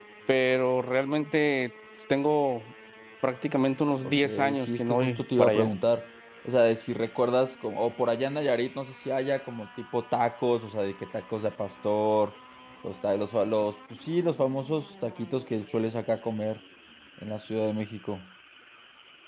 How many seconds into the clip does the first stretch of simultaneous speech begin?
4.0 s

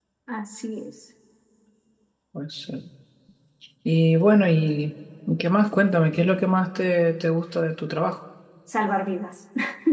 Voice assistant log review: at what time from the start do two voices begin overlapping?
none

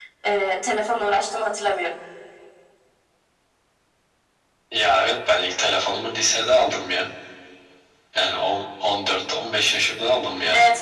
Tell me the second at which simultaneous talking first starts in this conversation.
none

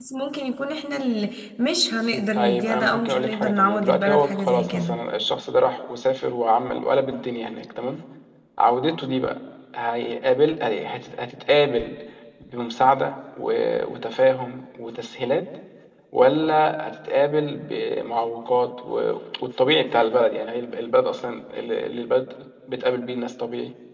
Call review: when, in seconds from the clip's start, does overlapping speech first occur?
2.3 s

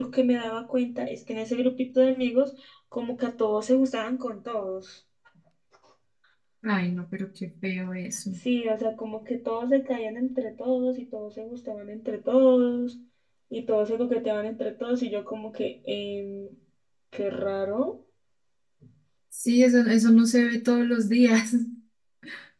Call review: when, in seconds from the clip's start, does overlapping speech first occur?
none

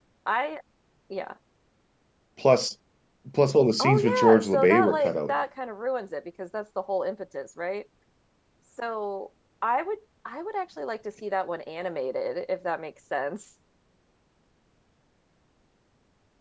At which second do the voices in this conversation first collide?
3.8 s

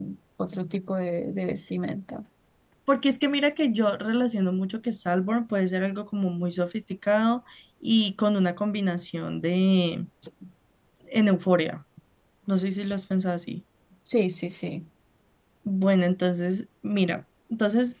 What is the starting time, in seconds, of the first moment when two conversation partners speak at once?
none

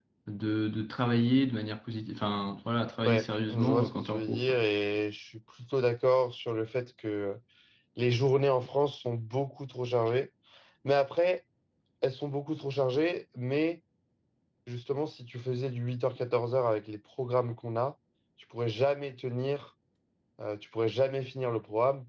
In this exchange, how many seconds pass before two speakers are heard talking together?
3.0 s

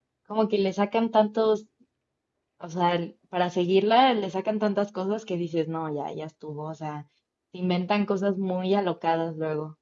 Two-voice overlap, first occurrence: none

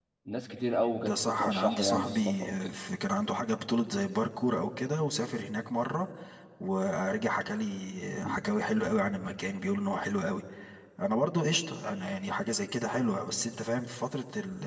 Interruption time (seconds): 1.0 s

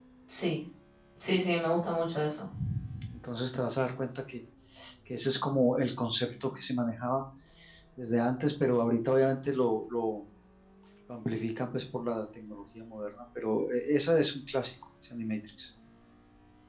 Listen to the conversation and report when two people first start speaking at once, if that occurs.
none

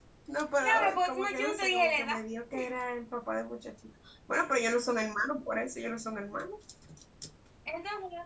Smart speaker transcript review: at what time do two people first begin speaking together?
0.6 s

